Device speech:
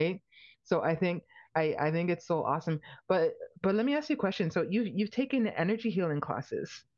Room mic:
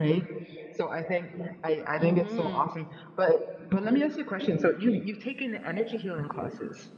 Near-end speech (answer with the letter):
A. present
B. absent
A